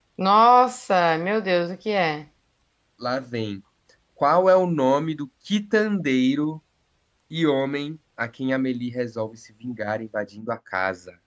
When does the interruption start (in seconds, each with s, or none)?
none